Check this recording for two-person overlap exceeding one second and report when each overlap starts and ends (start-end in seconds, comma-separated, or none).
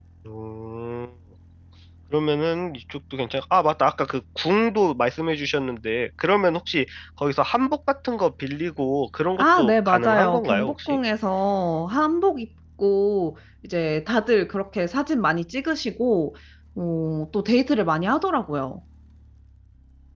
9.4-11.0